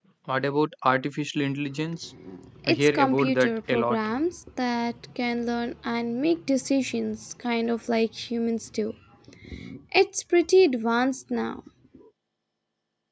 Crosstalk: present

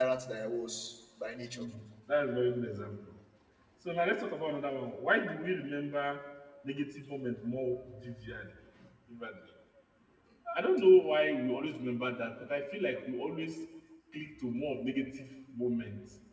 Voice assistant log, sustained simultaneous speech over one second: none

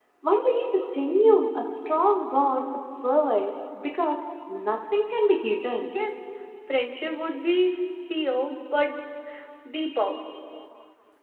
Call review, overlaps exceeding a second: none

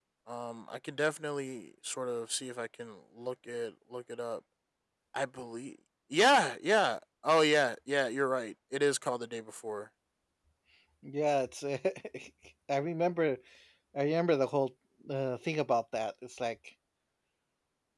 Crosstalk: none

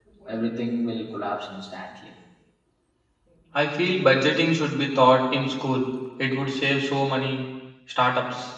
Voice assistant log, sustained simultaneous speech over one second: none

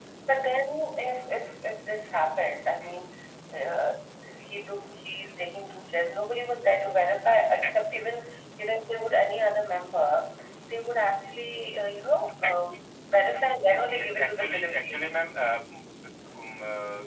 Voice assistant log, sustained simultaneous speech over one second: present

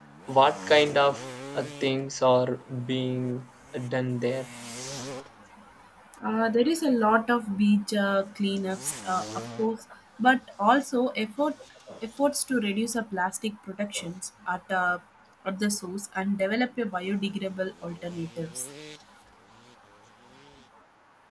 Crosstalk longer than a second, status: none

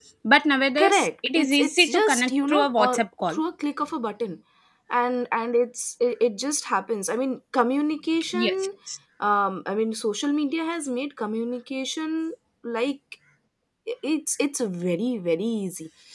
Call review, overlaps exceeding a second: present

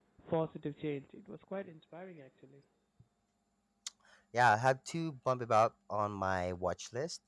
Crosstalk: none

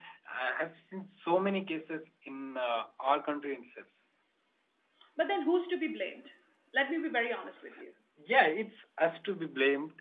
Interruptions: none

